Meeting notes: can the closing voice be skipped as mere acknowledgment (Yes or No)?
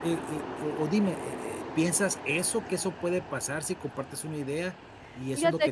Yes